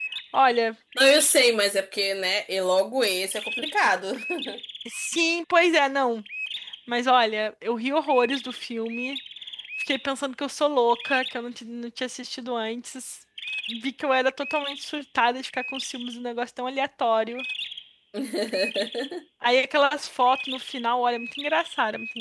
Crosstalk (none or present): none